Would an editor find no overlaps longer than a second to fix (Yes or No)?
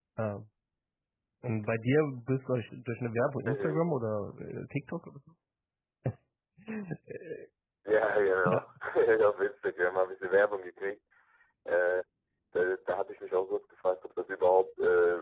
Yes